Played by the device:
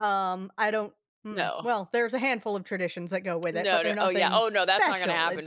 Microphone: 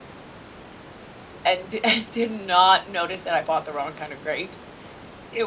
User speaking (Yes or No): Yes